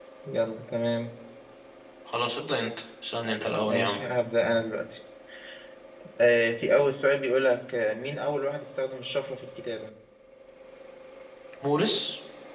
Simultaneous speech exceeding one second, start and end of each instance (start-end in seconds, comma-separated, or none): none